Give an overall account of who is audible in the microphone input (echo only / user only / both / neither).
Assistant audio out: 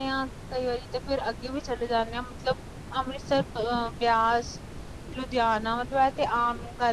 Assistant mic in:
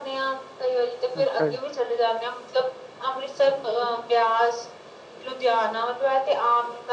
both